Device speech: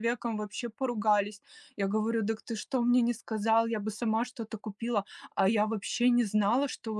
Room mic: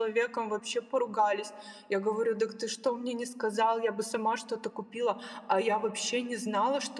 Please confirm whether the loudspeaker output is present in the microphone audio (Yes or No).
Yes